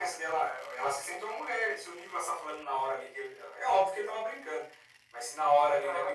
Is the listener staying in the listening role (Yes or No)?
Yes